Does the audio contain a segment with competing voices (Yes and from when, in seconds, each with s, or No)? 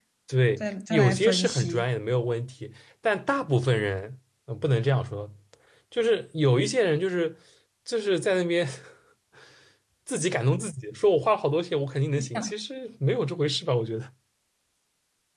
Yes, from 0.6 s